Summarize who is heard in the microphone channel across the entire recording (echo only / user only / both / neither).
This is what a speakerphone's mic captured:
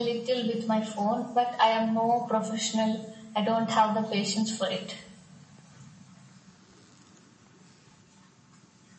echo only